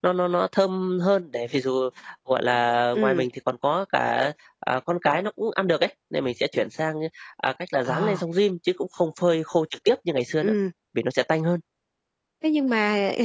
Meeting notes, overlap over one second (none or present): none